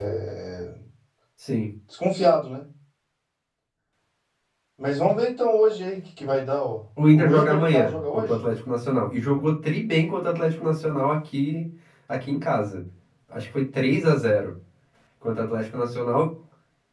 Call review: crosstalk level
present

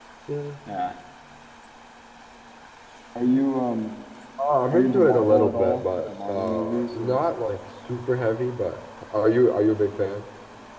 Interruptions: present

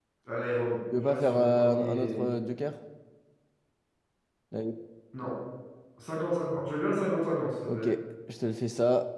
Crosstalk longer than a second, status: present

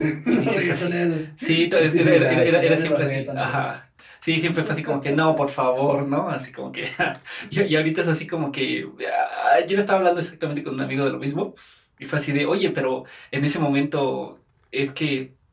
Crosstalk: present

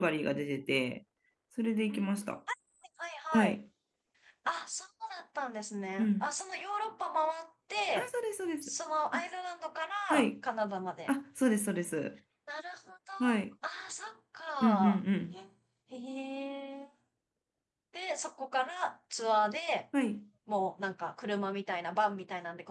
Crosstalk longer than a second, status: none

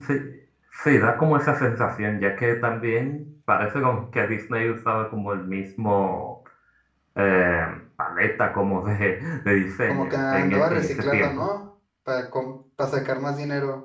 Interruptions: present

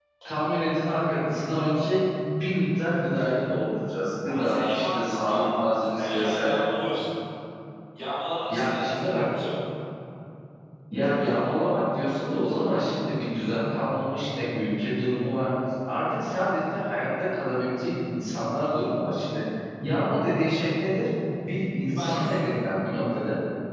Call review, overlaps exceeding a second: present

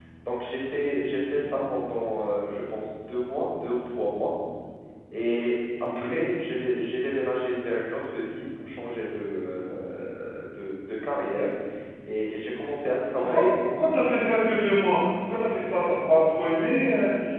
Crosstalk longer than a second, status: none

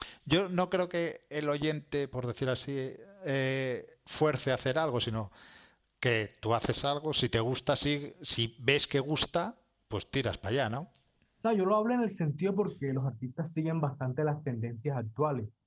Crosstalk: none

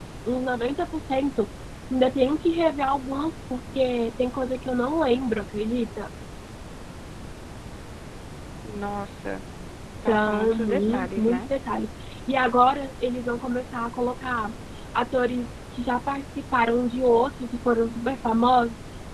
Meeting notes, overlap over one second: present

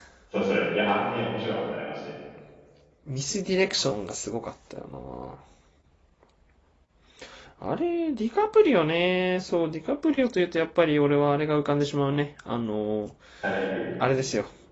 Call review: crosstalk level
none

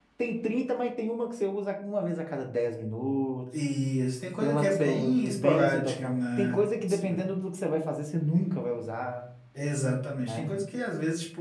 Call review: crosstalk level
present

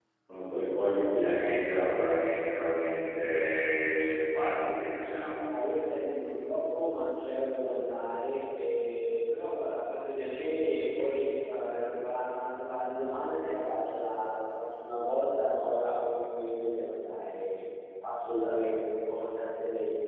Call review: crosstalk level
none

